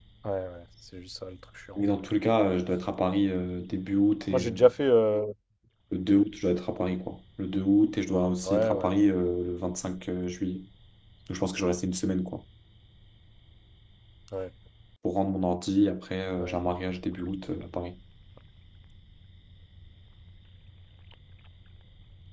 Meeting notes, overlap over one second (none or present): none